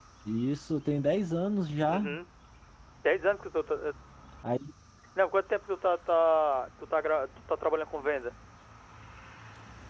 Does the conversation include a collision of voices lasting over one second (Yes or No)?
No